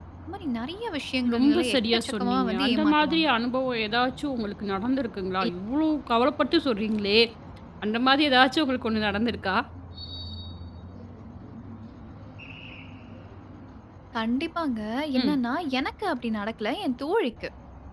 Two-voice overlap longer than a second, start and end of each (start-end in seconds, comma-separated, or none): 1.3-3.3